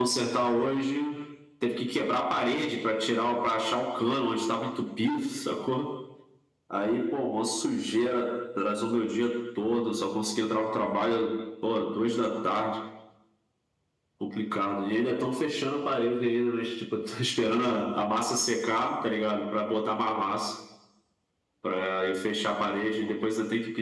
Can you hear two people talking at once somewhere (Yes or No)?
No